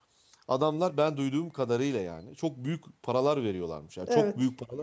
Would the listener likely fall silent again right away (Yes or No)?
Yes